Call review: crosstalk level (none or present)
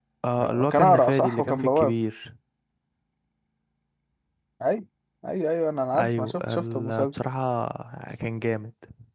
present